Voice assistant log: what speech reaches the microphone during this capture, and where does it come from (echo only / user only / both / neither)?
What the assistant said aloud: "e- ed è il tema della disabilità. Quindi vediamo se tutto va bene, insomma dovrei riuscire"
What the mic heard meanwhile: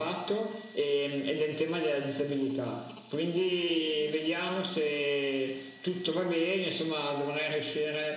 echo only